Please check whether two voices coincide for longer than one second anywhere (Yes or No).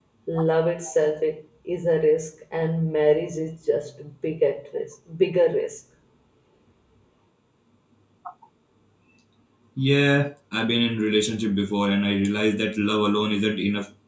No